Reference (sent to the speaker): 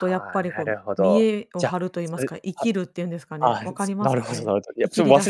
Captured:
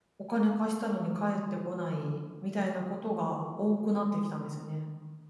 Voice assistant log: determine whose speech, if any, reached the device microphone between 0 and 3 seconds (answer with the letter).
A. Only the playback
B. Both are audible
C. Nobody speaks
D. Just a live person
D